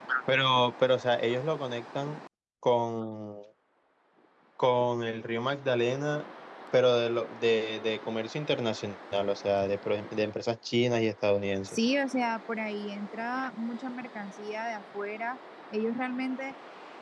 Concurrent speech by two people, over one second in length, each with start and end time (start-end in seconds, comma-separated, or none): none